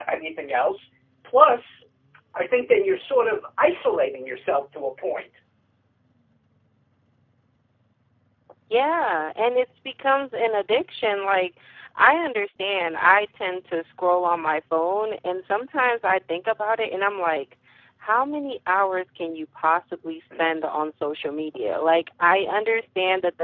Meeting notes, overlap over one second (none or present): none